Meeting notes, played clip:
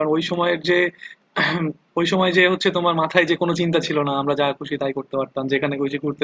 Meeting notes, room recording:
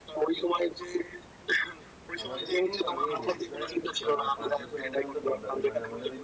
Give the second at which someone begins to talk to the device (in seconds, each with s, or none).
2.2 s